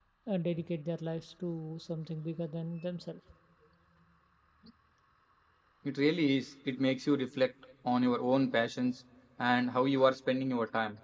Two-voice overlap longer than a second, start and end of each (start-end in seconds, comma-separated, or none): none